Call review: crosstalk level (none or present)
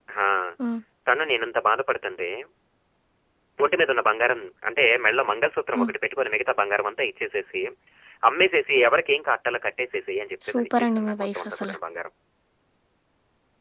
present